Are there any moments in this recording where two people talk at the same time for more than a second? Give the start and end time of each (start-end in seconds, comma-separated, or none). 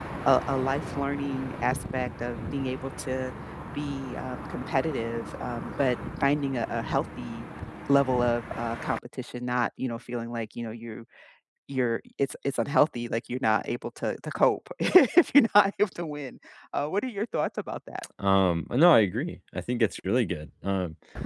none